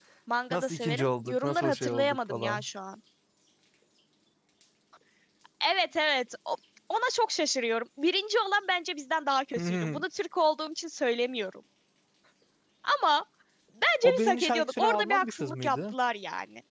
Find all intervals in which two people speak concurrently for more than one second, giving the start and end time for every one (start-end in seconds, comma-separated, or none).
0.5-2.6, 14.0-15.9